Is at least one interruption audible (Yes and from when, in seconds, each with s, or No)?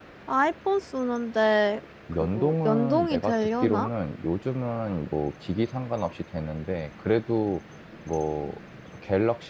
Yes, from 2.2 s